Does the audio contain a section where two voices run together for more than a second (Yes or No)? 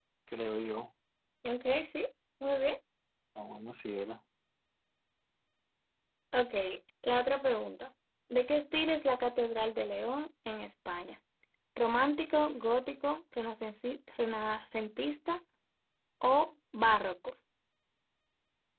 No